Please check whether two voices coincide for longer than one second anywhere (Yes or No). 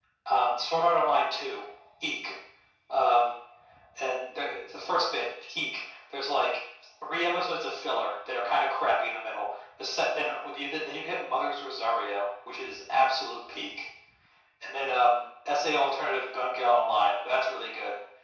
No